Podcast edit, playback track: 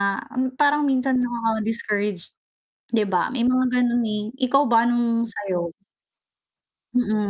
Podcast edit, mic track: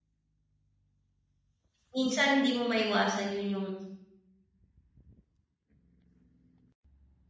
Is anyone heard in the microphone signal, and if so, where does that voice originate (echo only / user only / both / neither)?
user only